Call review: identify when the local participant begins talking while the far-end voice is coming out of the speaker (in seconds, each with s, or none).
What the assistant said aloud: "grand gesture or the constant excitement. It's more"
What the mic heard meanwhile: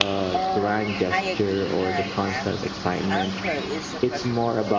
0.3 s